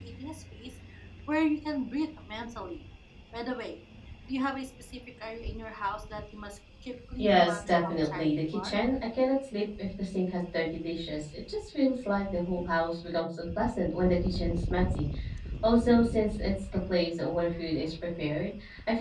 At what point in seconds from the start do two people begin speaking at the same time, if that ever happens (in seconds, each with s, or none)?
7.2 s